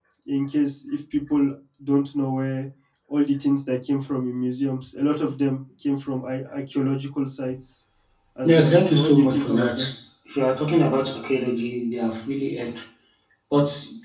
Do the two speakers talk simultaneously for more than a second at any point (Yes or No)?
Yes